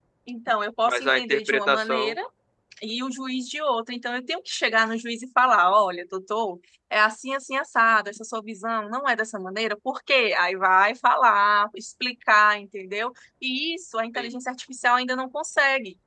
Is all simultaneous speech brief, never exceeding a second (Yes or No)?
No